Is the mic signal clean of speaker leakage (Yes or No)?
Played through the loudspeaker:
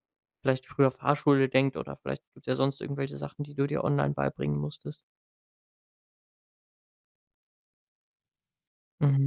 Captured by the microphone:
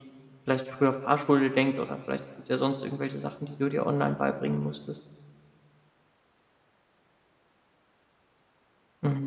No